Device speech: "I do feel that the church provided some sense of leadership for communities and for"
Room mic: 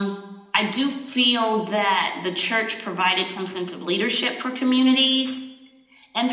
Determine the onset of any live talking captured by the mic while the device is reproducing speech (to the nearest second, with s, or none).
none